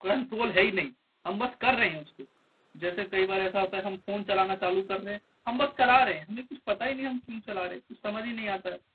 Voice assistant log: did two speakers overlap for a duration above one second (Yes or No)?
No